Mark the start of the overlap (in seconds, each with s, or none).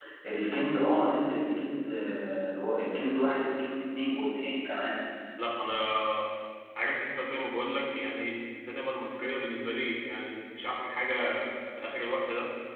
none